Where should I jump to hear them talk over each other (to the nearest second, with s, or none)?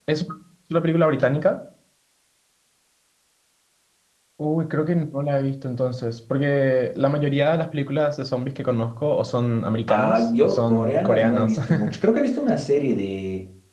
10 s